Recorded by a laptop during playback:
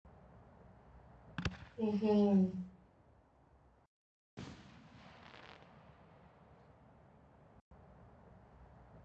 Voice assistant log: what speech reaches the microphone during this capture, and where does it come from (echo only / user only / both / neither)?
user only